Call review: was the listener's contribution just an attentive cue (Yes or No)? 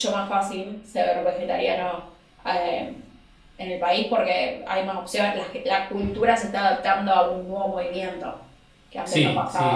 No